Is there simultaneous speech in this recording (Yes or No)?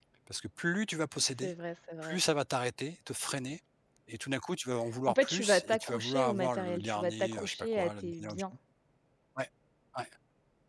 Yes